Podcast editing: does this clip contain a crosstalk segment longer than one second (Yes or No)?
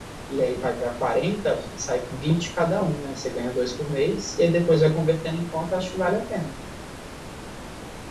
No